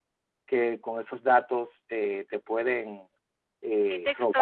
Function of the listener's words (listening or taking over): taking over